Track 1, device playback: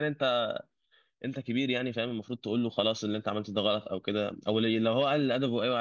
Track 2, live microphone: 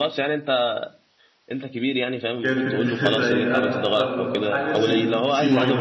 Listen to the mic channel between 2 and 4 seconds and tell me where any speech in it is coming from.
both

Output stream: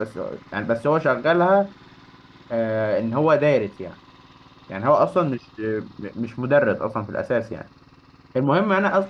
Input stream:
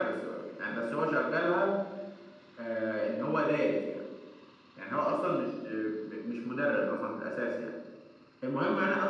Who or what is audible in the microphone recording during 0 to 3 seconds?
echo only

